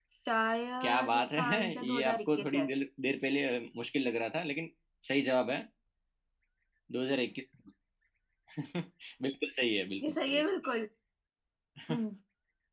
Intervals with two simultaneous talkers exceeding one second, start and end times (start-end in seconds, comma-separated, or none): 0.8-2.7